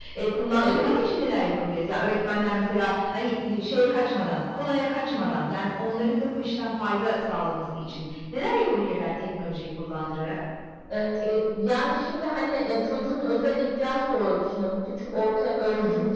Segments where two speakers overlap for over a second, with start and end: none

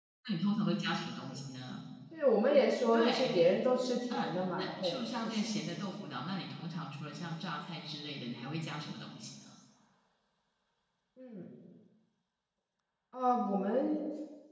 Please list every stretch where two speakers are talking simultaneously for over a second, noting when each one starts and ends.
4.1-5.5

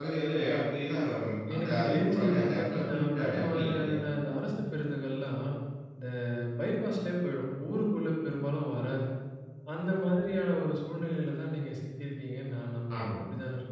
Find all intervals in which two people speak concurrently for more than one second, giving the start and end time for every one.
1.5-4.0

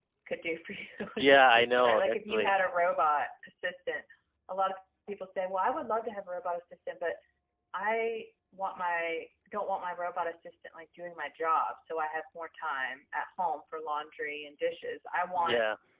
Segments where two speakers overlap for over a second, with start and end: 1.2-2.6

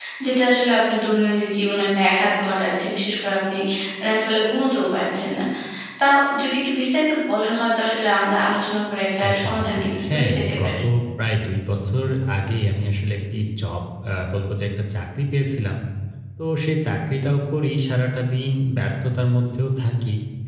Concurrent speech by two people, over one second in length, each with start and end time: 9.3-10.5

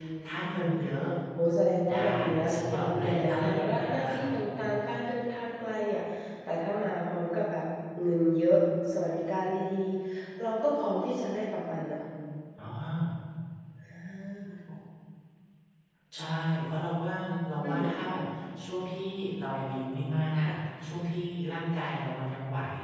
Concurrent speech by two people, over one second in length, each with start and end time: 1.9-4.7

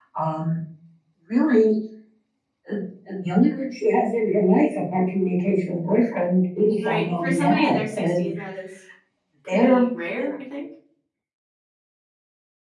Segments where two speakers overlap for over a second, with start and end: 6.8-8.3

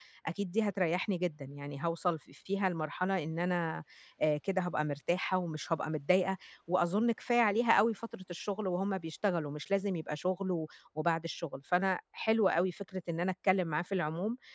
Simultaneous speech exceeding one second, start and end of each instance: none

